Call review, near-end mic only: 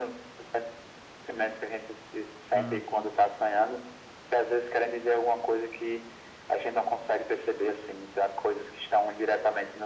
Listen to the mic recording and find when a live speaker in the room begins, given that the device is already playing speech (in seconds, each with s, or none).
2.5 s